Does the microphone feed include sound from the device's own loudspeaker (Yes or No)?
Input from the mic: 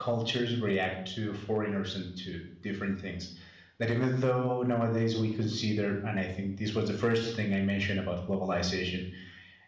No